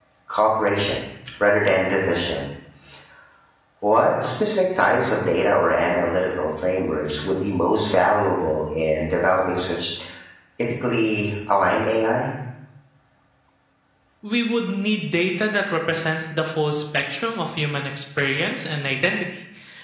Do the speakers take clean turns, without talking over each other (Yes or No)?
Yes